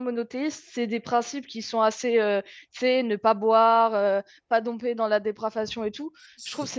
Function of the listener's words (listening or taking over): listening